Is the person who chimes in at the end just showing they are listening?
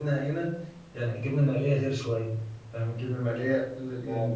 Yes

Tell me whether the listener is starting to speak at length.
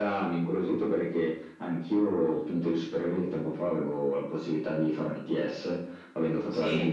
No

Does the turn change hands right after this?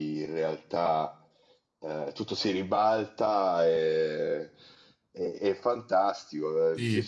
No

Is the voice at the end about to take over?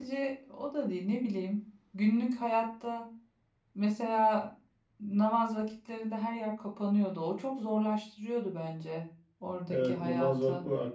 Yes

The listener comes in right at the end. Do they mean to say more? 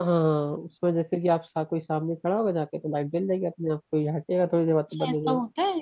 Yes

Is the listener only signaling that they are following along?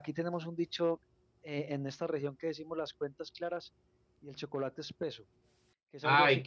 No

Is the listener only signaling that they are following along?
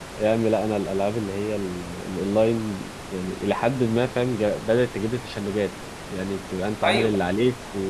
Yes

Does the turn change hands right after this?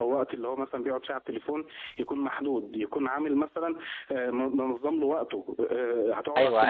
Yes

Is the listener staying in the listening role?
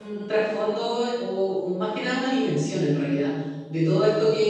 Yes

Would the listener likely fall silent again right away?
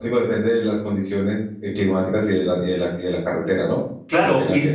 No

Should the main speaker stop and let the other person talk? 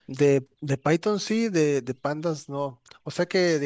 No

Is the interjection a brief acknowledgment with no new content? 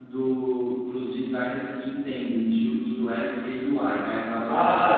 No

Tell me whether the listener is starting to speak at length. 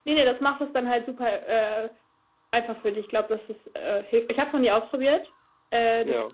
No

